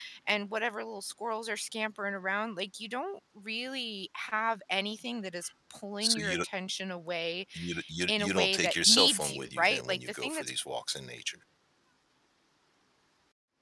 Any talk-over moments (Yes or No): Yes